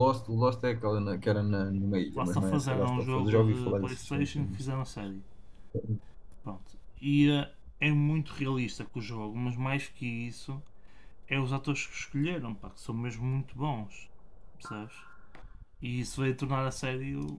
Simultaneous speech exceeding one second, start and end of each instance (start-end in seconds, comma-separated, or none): 2.2-4.6